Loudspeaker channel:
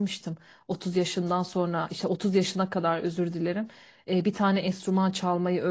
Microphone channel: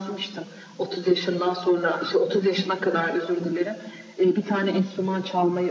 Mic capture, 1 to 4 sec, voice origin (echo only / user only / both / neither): echo only